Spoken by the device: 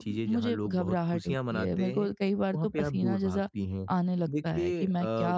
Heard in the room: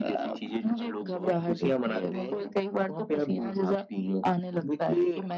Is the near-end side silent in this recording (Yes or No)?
Yes